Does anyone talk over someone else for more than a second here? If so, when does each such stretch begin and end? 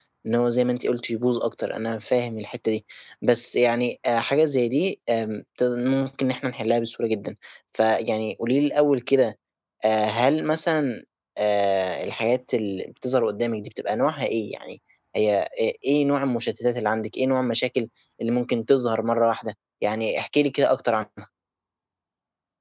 none

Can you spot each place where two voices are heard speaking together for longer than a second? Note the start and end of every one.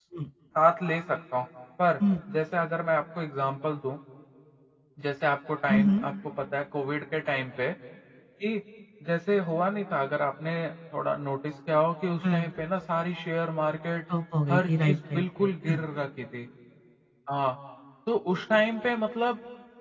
14.5-15.8

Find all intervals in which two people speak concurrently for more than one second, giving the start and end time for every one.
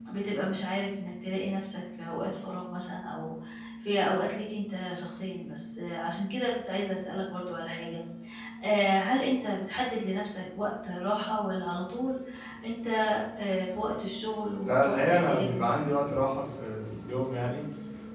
14.6-15.9

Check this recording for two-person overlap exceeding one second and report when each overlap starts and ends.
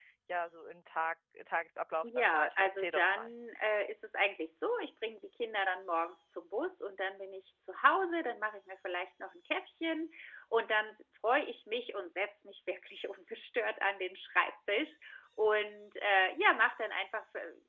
2.0-3.3

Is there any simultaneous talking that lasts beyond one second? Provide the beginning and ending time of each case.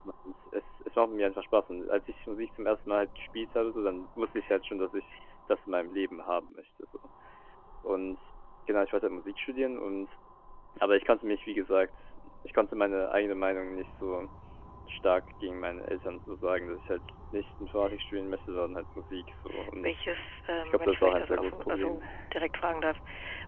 20.6-22.0

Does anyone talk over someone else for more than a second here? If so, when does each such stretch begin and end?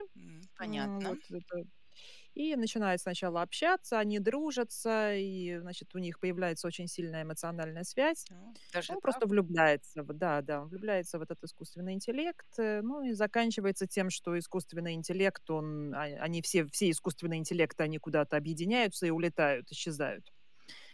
none

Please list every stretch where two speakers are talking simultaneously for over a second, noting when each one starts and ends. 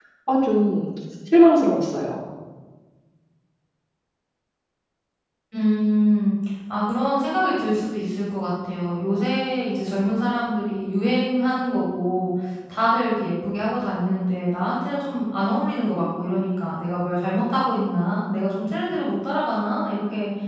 none

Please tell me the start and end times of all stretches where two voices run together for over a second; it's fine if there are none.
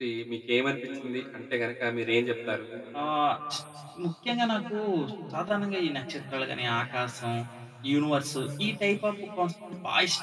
none

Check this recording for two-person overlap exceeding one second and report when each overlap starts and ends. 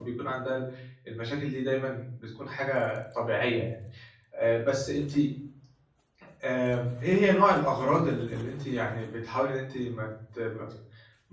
none

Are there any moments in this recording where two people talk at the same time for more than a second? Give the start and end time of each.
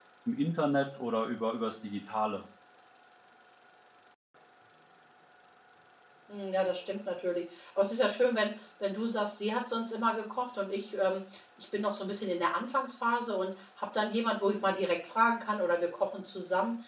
none

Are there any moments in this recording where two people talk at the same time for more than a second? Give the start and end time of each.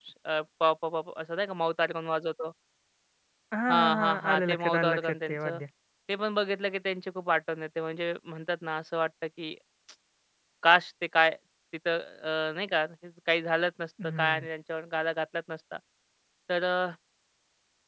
3.7-5.6

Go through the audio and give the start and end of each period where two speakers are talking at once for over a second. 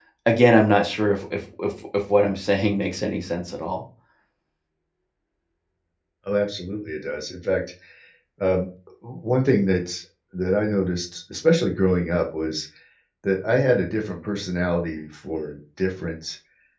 none

